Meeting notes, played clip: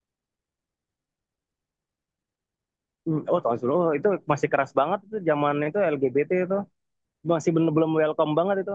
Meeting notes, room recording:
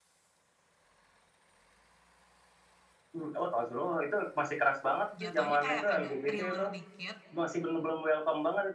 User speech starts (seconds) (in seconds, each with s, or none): 5.2 s